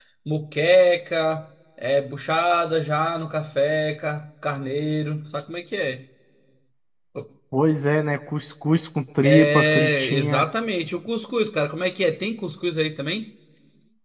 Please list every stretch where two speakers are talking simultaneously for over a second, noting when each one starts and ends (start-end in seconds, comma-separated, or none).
9.2-10.5